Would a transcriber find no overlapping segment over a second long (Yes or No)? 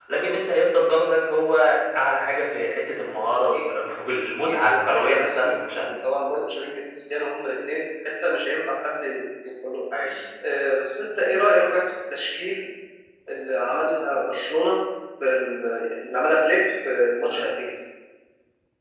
No